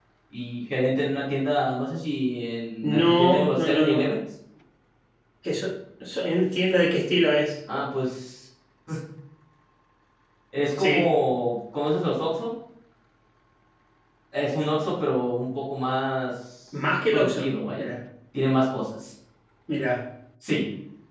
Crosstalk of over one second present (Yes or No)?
Yes